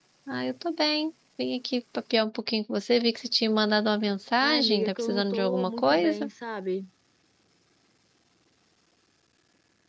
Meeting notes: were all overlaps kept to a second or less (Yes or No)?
No